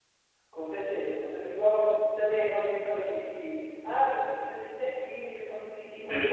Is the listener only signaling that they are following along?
No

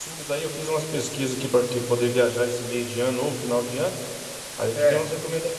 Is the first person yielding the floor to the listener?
No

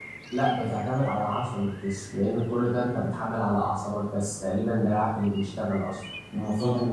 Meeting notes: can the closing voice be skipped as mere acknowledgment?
Yes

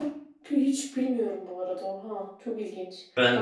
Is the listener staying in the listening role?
Yes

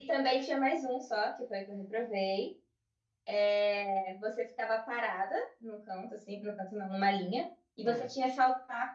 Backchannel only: Yes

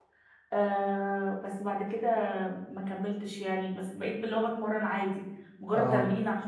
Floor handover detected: No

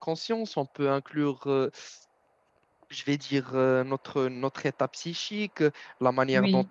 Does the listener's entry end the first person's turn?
No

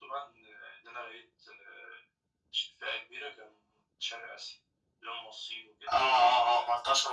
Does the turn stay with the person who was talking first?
No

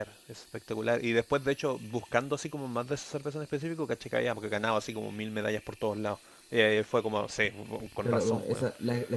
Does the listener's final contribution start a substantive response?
Yes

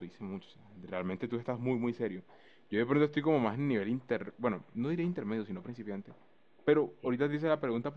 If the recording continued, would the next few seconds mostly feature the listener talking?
No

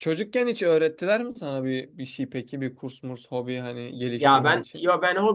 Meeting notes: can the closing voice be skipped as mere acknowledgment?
No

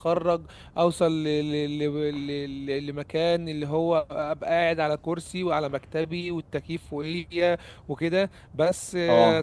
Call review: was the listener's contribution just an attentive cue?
Yes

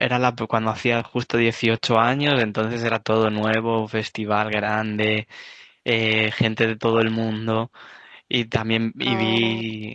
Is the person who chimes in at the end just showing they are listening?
Yes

